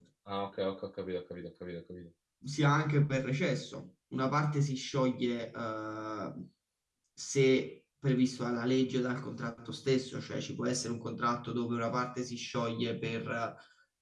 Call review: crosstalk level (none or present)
none